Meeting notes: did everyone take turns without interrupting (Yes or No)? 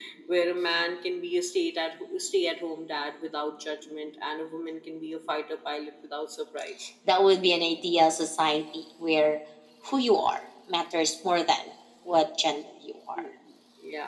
Yes